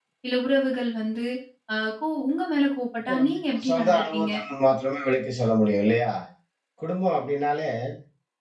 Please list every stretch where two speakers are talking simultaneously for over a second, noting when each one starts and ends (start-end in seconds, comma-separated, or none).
3.1-4.3